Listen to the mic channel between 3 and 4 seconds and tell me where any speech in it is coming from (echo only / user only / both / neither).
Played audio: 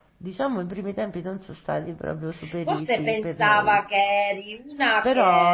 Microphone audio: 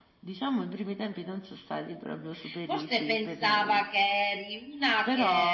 echo only